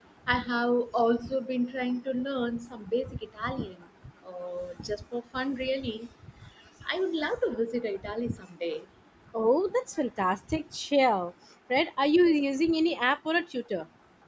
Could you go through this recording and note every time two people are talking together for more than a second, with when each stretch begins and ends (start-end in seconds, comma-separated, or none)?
none